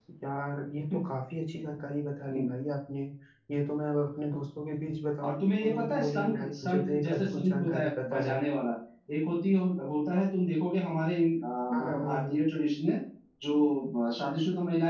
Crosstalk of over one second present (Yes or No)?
Yes